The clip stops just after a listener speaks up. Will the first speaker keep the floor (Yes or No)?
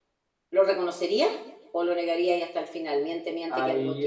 No